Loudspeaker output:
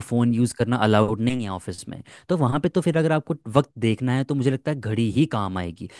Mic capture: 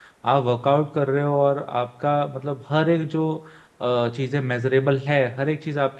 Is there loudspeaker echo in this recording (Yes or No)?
No